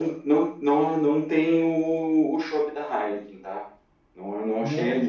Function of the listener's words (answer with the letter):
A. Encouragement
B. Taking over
A